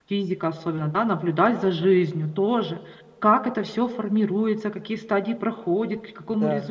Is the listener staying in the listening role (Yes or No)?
Yes